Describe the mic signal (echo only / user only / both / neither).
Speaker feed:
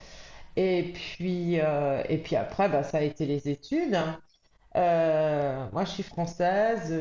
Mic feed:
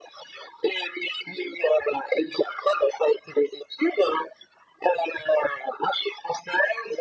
echo only